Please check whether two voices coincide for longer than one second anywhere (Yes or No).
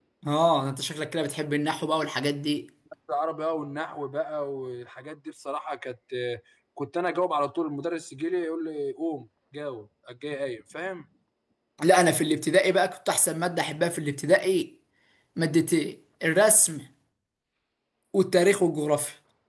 No